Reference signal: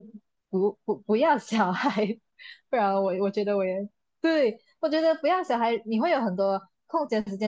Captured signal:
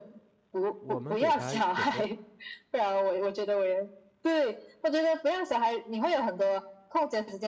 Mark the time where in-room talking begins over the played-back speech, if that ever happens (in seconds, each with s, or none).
0.8 s